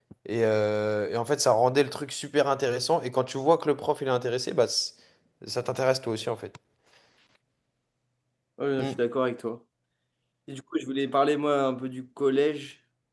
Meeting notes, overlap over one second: none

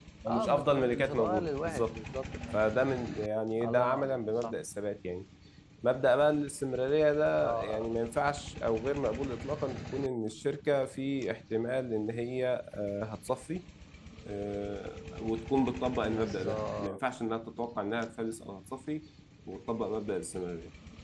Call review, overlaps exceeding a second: present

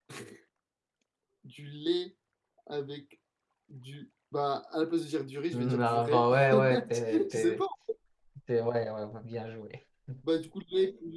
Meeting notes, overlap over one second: present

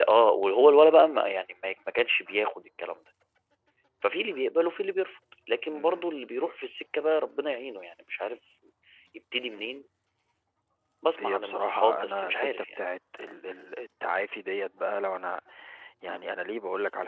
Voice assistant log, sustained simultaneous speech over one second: present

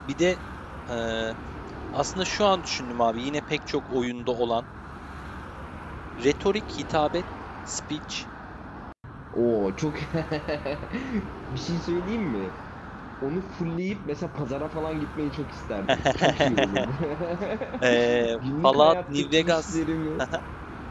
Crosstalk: present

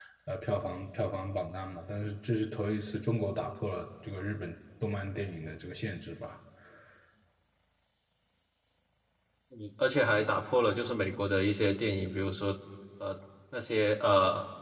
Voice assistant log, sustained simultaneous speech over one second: none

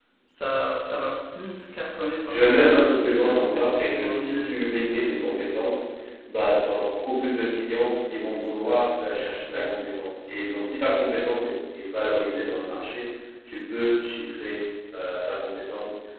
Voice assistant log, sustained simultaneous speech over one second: present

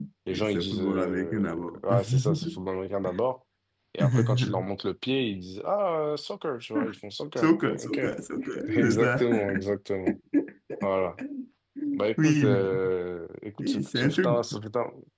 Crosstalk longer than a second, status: present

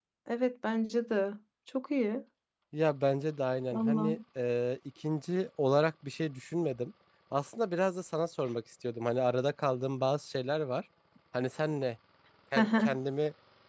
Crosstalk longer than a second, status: none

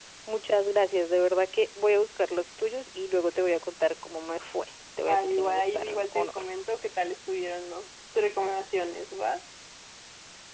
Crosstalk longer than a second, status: present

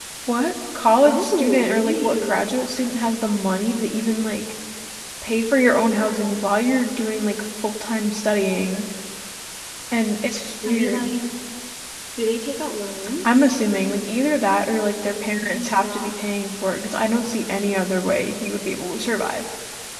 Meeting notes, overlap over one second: present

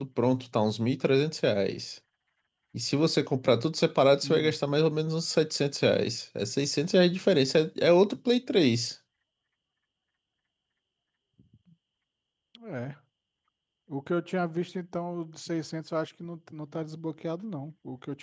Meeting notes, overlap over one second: none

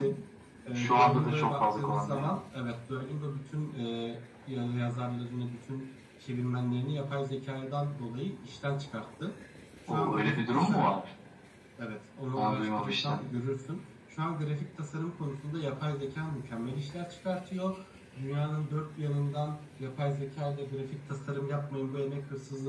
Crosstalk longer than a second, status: present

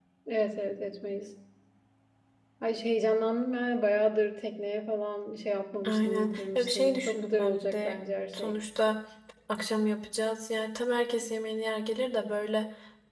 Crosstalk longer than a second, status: present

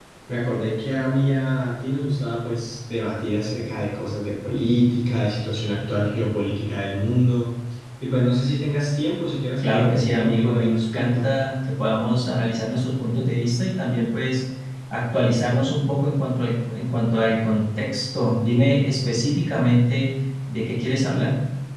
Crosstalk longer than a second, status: present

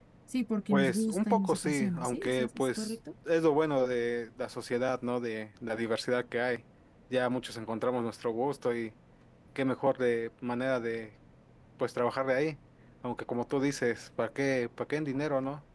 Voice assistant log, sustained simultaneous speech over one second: present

